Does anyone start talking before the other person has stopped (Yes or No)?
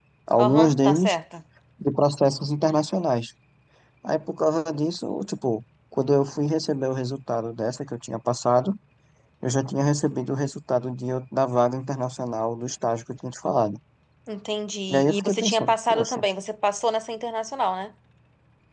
Yes